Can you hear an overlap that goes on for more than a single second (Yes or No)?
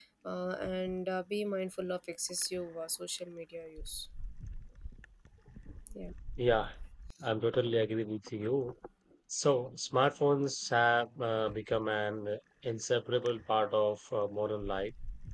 No